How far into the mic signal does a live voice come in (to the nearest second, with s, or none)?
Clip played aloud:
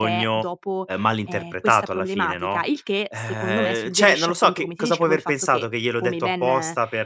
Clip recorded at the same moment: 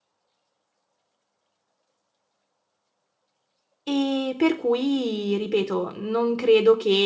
4 s